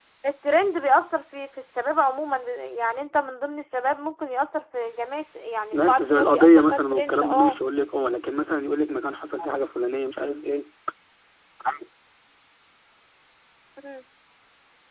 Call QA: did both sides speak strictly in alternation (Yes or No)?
No